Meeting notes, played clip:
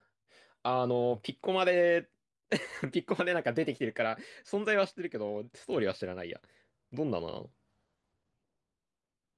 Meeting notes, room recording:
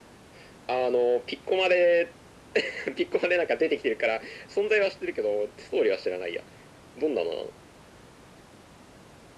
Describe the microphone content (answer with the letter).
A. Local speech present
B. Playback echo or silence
B